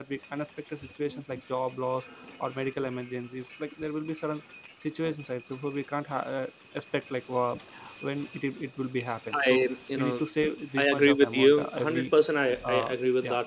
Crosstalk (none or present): present